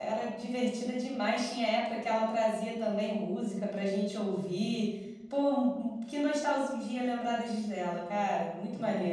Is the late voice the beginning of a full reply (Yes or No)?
Yes